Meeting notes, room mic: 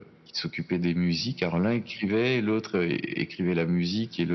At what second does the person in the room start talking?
none

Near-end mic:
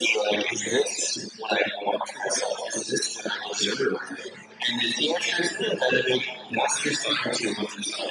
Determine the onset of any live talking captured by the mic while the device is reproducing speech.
none

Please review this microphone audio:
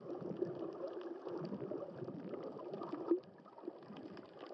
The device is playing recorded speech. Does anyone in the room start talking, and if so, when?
none

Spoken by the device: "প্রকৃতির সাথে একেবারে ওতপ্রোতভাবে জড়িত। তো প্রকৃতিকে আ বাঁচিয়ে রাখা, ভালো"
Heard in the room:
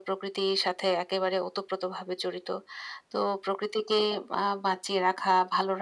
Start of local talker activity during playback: none

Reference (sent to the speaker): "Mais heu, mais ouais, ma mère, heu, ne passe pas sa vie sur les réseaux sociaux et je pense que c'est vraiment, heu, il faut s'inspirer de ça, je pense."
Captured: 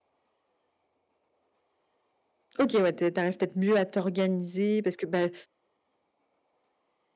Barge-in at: 3 s

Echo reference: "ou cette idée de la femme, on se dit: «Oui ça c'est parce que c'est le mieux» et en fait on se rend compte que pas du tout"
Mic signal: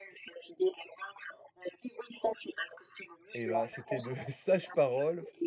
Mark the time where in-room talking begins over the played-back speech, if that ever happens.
3 s

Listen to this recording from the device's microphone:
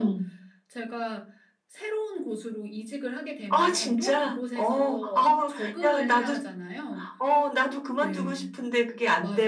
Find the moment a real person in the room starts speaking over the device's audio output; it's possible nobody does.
none

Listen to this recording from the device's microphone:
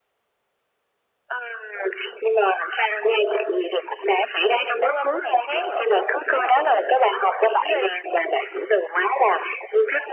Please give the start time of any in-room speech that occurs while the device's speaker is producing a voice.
5 s

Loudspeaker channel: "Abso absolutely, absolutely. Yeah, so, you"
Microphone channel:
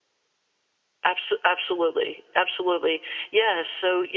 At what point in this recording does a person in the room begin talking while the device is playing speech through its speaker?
none

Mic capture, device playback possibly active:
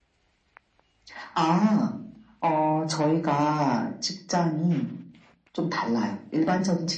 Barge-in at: none

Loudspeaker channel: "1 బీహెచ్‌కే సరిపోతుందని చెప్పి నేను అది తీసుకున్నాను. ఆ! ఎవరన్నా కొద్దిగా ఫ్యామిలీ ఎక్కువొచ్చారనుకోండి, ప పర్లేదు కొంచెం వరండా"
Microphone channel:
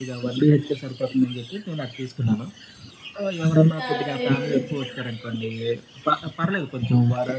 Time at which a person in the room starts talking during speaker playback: 4 s

